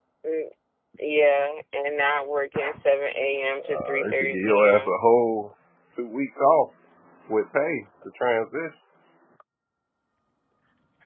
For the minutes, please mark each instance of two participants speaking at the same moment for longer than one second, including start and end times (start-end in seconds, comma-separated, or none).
3.7-5.0